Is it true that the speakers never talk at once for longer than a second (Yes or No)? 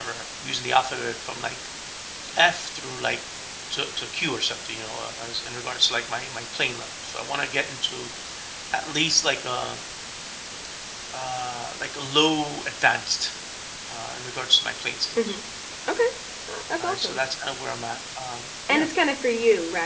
Yes